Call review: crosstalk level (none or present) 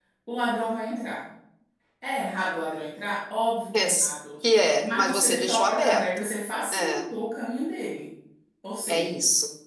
present